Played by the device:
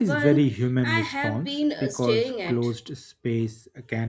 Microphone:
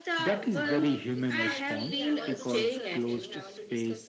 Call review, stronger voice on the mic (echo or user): echo